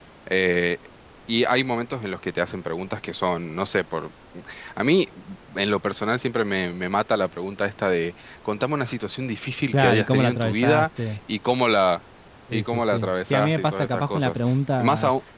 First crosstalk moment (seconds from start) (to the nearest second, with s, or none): 10 s